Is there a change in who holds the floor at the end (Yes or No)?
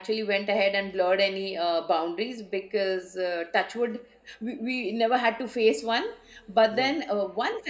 No